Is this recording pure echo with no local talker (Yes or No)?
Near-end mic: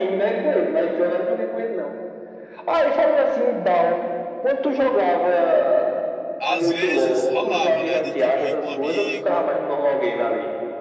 No